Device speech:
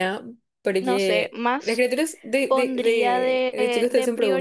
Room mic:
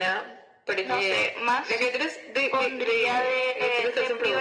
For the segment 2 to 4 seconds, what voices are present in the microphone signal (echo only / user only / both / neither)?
echo only